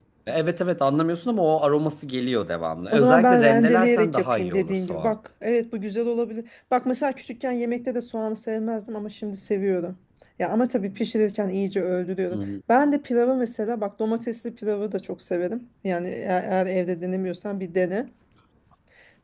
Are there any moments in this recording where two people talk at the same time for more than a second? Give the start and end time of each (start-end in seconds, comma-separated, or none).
2.9-5.1